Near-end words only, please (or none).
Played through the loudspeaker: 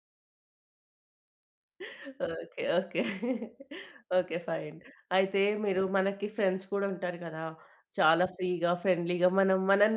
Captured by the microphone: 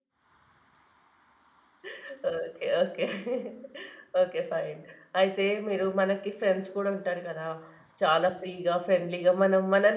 none